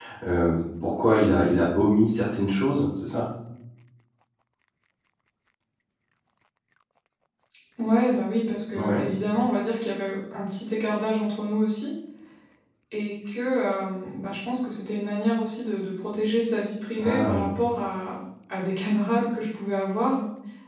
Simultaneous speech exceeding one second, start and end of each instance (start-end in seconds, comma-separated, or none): none